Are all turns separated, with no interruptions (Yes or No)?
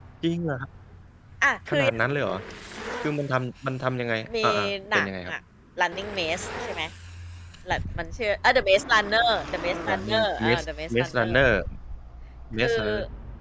No